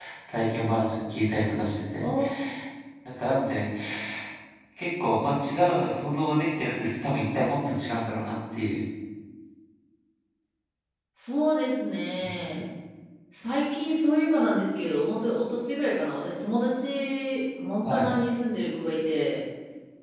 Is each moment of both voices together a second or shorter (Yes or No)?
Yes